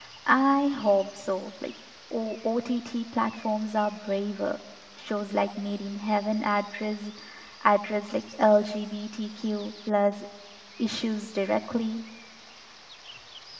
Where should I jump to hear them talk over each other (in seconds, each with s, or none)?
none